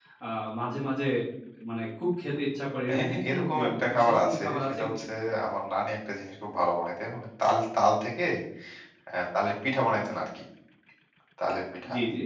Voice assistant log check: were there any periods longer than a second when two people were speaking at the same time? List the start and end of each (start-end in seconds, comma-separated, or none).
2.9-4.8